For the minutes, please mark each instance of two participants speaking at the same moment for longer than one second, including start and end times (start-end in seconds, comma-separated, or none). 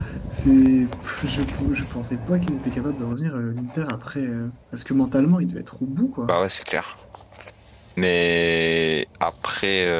none